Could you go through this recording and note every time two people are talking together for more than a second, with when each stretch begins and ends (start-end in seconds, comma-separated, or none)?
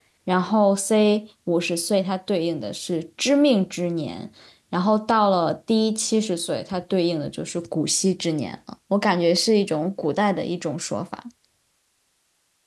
none